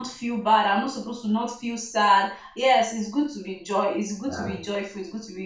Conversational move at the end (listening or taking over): listening